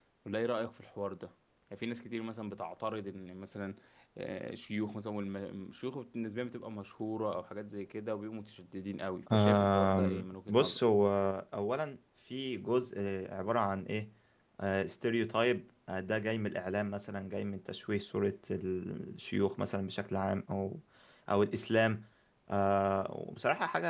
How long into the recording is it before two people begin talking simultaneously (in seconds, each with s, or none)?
9.3 s